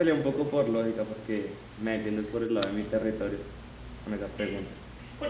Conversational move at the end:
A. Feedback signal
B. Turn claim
B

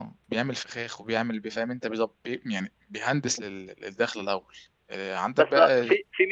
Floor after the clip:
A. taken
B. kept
A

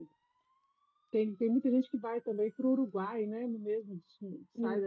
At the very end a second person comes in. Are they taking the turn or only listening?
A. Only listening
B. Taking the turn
A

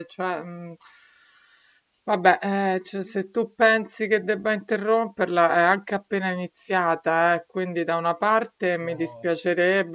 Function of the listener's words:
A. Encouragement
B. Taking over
A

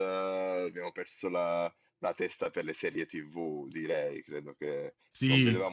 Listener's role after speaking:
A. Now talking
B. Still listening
B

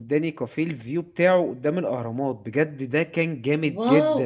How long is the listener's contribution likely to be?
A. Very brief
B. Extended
B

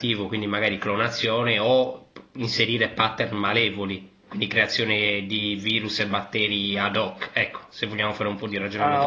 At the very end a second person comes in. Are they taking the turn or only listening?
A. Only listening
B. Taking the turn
B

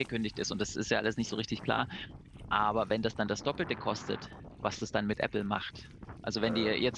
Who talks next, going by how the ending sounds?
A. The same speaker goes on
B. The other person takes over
A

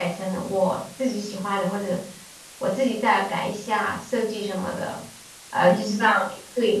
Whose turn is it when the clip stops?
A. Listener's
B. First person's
B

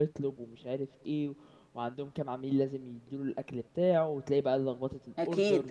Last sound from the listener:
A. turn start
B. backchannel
B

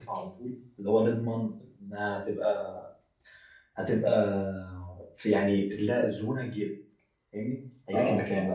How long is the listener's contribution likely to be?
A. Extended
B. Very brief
B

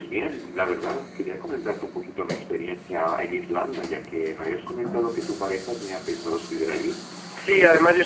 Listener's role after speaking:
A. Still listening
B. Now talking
B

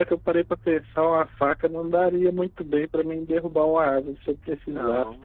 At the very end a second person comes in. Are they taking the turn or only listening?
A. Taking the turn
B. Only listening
B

